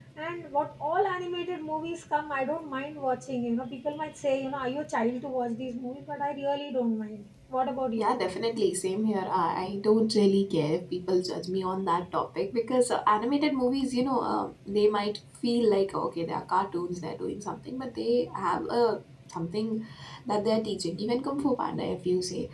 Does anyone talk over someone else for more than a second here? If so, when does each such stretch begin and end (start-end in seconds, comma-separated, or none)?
none